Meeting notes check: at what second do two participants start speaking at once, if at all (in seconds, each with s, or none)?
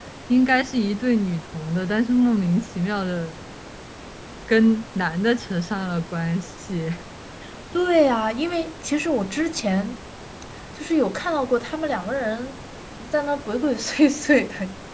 none